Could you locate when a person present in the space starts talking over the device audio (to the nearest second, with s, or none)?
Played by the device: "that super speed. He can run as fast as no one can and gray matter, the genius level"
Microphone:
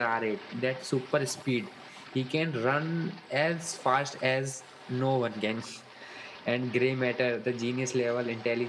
none